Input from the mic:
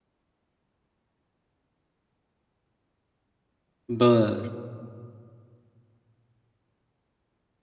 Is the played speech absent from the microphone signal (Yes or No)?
Yes